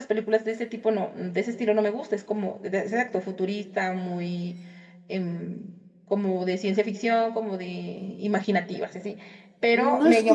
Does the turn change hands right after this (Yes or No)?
Yes